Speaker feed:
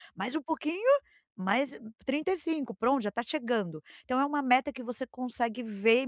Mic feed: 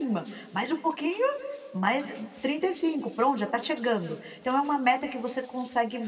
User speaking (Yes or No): No